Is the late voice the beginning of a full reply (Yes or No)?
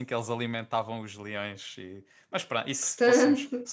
No